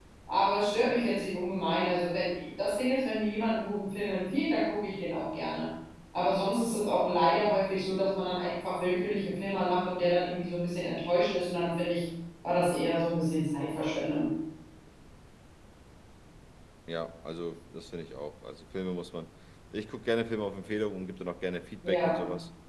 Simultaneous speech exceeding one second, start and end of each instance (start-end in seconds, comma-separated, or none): none